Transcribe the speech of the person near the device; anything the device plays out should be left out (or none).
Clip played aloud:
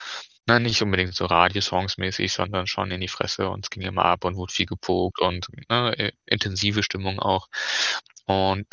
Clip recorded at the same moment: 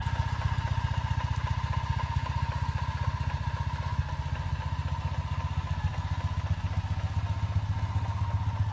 none